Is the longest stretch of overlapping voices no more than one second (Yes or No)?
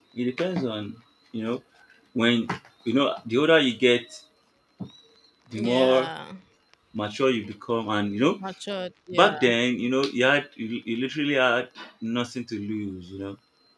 Yes